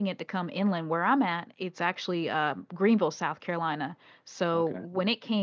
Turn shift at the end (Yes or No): No